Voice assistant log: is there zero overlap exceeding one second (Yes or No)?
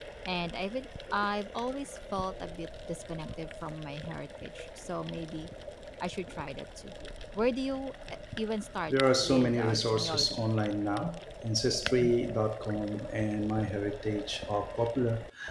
No